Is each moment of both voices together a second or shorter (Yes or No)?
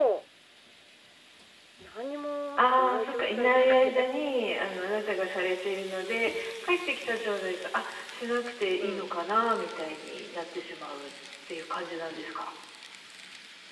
No